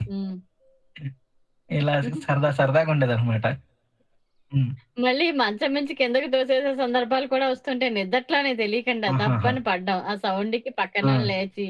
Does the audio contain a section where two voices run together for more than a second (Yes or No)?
No